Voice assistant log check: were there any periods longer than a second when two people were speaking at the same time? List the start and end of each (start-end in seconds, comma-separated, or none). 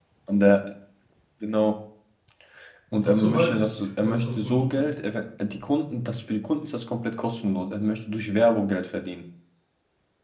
3.0-4.9